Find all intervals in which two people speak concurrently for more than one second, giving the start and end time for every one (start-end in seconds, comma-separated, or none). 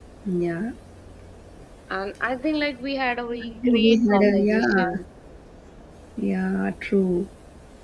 3.6-4.8